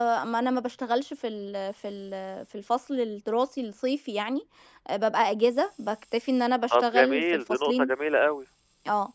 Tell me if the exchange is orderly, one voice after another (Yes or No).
No